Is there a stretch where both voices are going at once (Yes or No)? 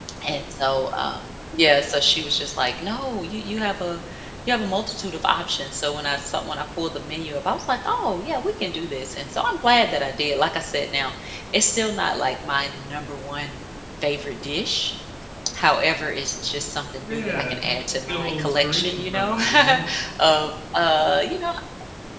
Yes